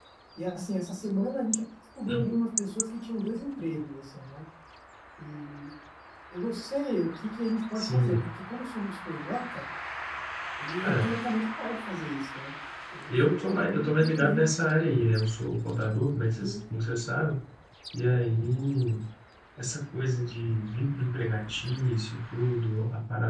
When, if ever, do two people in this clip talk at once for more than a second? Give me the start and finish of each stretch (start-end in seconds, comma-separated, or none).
13.1-14.4